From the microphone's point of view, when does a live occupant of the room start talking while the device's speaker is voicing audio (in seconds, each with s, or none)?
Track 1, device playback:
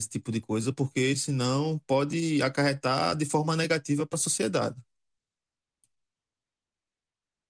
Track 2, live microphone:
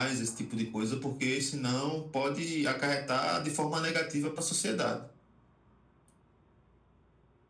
none